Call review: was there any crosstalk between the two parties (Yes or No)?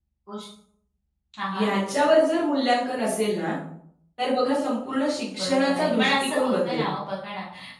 Yes